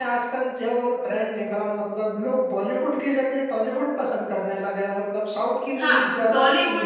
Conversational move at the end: taking over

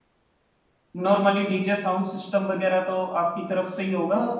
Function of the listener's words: taking over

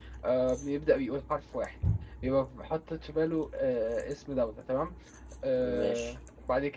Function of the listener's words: listening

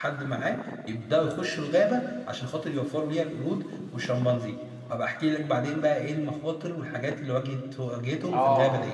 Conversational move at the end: taking over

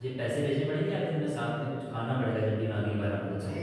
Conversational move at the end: taking over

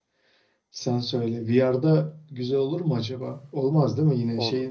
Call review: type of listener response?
taking over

